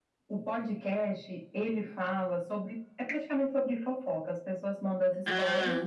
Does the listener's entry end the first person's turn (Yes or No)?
No